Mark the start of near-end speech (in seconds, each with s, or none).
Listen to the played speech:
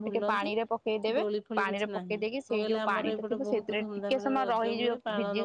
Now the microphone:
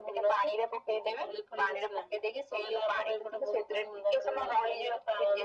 none